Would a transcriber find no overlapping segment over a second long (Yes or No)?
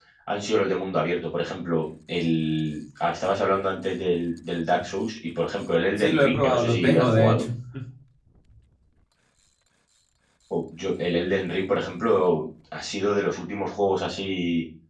No